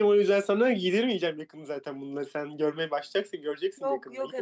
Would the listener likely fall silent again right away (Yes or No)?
No